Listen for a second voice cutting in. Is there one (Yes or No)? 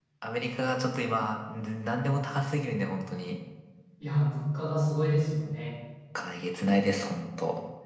No